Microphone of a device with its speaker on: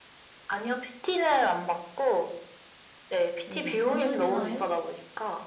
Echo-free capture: No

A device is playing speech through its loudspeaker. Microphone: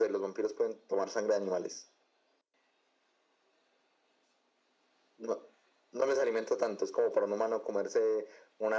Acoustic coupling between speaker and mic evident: Yes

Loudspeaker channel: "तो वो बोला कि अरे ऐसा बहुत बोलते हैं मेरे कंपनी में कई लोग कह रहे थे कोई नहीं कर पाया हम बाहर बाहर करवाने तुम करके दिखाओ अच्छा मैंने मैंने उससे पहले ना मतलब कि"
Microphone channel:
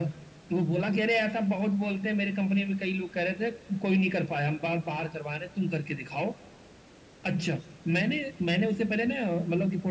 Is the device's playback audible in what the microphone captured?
Yes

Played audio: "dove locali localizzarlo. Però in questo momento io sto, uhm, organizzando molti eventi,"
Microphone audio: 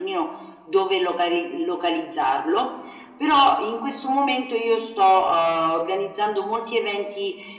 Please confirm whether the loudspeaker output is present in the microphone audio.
Yes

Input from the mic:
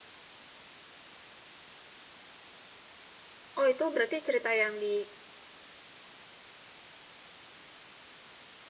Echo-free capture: Yes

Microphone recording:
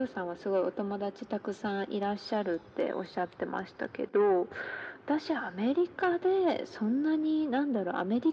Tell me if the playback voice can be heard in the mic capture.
Yes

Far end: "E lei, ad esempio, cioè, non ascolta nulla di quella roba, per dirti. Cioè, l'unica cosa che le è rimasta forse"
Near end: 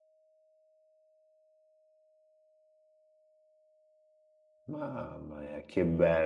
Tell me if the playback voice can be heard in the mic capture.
No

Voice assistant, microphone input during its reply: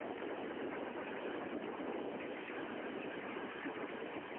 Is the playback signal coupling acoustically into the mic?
No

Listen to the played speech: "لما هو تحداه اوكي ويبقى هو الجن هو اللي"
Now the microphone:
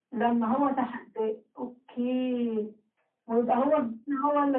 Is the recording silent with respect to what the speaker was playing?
No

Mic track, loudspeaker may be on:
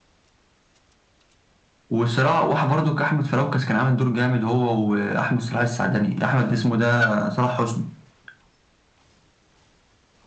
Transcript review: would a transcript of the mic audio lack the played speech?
No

